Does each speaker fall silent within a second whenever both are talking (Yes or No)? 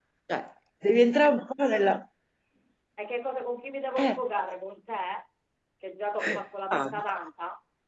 Yes